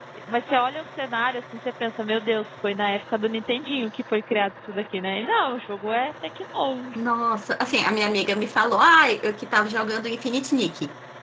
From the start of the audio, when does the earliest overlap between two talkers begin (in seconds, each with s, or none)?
none